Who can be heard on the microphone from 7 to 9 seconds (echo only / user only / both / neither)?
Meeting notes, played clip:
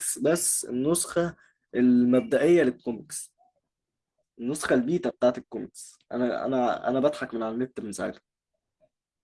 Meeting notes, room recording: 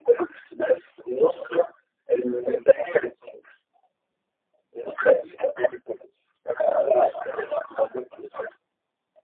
echo only